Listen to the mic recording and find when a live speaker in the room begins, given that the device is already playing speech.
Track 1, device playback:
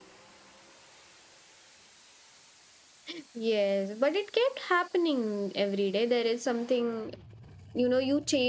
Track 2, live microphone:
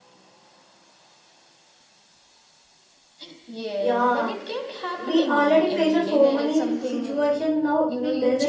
4 s

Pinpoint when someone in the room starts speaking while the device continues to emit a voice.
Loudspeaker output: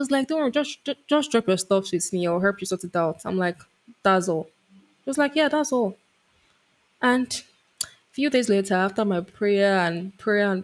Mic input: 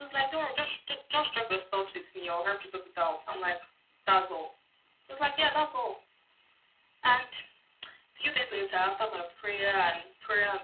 none

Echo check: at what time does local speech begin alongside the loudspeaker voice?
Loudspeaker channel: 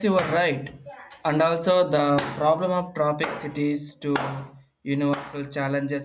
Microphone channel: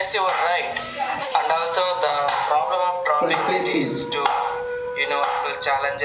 3 s

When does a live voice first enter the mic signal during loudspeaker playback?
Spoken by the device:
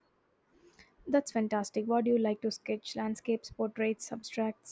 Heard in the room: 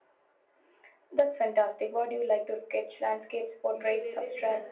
4 s

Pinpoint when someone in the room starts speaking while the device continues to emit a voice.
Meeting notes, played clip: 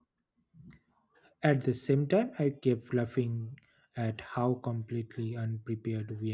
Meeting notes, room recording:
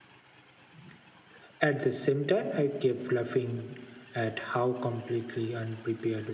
none

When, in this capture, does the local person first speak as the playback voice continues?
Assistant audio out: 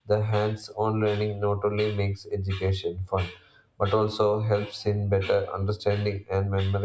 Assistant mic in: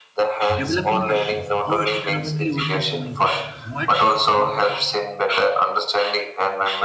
1 s

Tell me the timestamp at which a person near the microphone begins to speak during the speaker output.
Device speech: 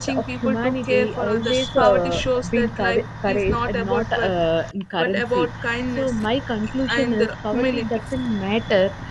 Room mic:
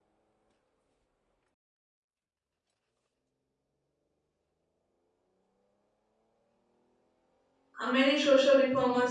8 s

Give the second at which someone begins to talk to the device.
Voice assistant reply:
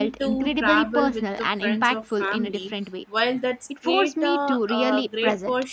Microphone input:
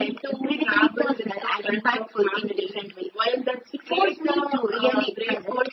none

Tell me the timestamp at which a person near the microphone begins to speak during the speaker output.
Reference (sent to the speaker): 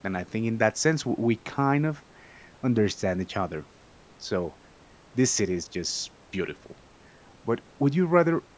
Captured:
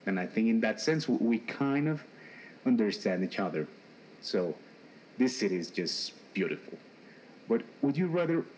none

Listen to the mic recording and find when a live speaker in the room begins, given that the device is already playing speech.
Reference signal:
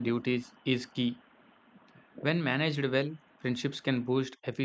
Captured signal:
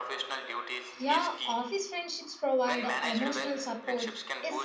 1 s

